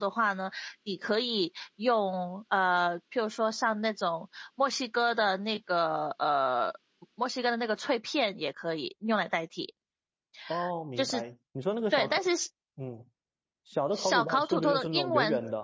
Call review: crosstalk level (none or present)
present